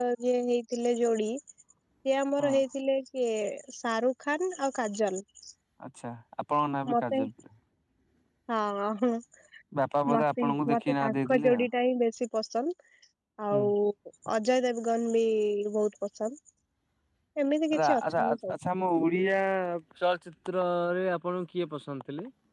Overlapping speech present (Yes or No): Yes